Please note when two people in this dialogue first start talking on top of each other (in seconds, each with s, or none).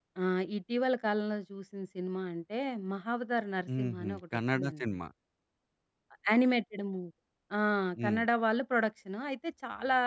3.7 s